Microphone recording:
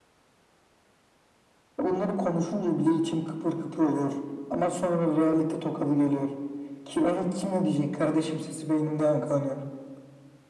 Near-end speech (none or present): none